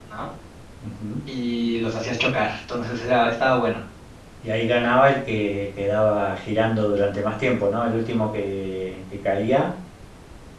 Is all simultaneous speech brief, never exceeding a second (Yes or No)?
Yes